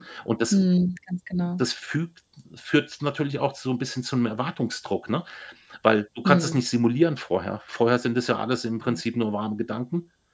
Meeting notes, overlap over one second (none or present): none